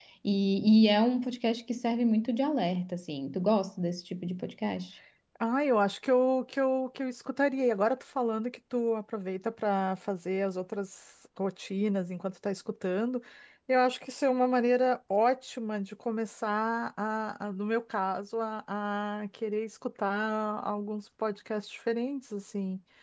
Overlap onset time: none

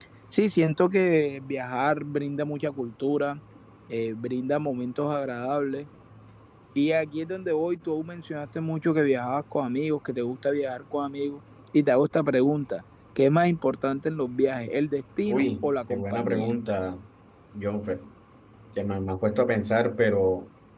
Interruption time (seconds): 15.3 s

